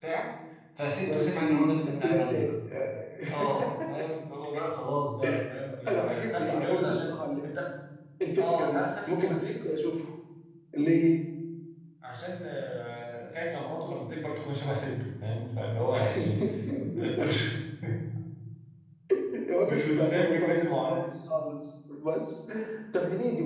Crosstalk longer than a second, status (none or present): present